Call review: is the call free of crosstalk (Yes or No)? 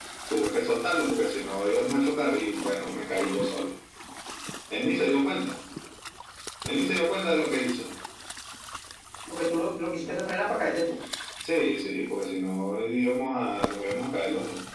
Yes